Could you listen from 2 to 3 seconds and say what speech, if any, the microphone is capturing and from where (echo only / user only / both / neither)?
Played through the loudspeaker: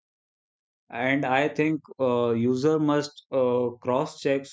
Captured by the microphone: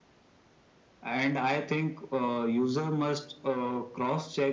echo only